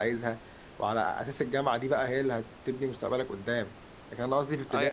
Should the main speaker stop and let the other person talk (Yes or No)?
No